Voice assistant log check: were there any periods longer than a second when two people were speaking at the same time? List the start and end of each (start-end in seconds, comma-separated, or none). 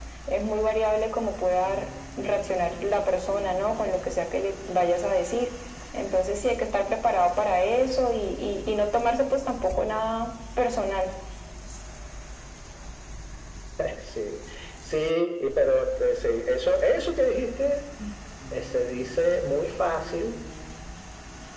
none